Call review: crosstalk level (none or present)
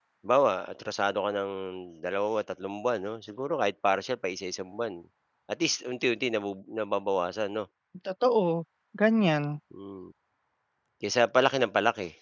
none